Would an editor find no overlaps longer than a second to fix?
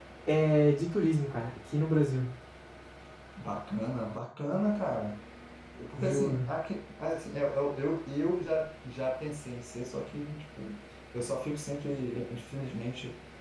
Yes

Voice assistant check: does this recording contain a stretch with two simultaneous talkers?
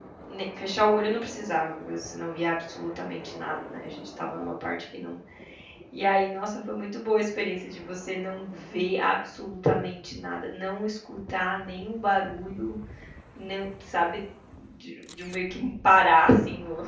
No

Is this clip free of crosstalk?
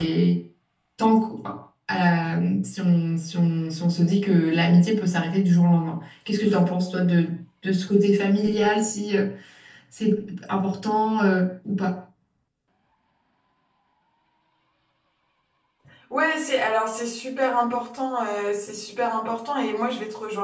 Yes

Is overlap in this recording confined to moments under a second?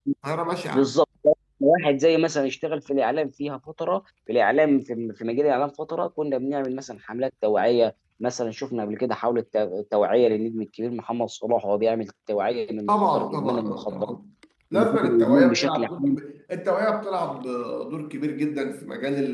No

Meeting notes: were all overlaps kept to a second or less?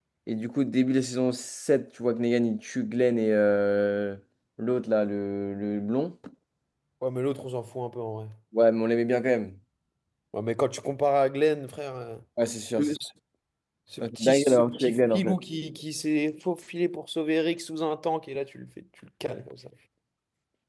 No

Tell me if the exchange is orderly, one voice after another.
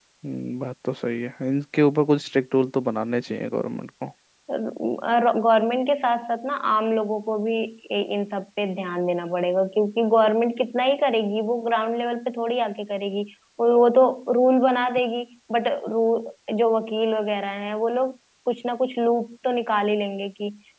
Yes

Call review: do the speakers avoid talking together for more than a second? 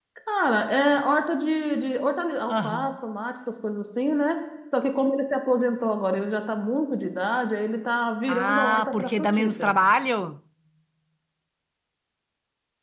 No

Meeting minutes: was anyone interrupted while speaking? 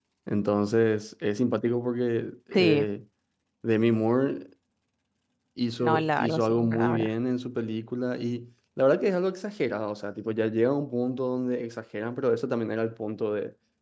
Yes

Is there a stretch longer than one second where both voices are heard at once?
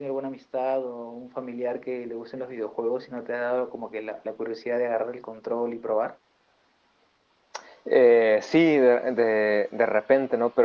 No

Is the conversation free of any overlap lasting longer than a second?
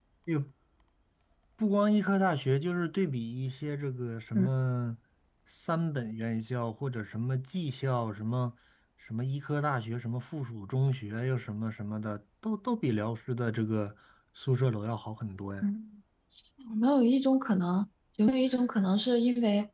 Yes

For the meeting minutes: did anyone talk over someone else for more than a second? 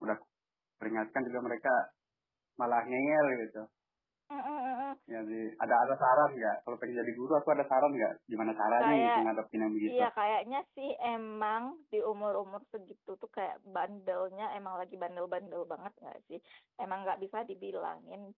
No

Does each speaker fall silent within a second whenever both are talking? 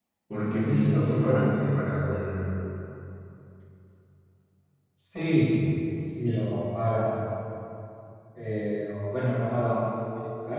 No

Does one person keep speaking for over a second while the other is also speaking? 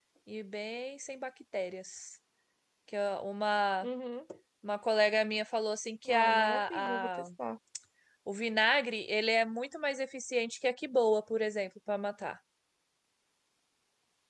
Yes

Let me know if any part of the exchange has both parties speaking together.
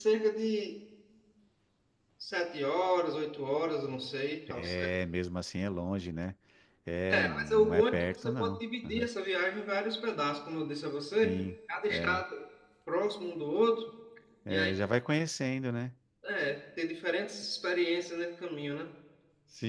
Yes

